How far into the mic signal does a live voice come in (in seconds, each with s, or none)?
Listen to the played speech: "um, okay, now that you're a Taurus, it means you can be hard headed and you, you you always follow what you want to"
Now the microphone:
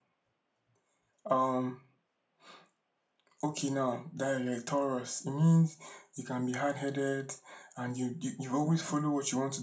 none